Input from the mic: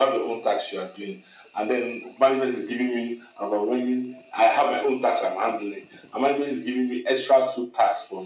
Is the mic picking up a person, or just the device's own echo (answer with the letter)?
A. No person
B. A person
A